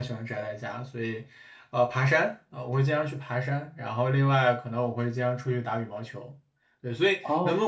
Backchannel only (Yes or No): Yes